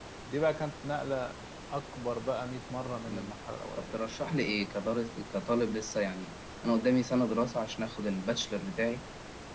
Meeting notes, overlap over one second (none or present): none